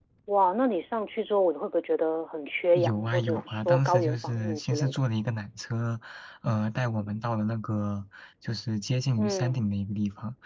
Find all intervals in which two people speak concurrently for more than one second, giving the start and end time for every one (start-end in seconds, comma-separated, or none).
2.8-5.0